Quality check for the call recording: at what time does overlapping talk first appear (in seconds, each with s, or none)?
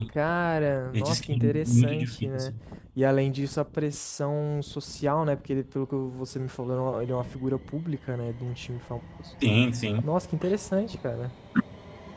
0.9 s